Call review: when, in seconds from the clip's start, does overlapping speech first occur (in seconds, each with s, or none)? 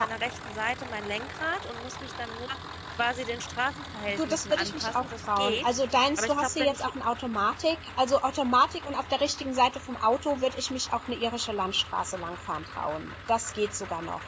4.1 s